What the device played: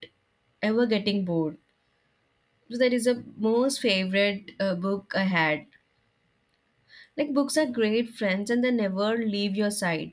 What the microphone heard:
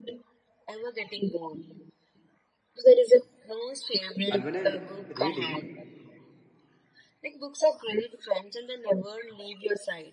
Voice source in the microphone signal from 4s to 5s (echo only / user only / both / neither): both